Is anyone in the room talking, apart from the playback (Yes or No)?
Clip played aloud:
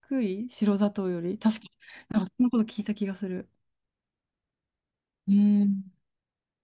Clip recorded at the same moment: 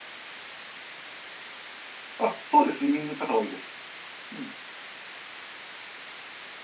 Yes